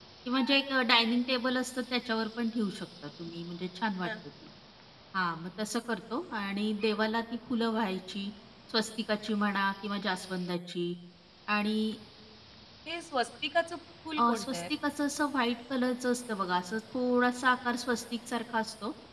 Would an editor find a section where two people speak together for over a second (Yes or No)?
No